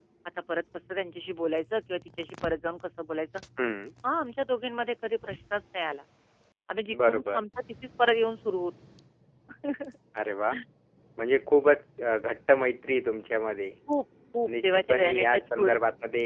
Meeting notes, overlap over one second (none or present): present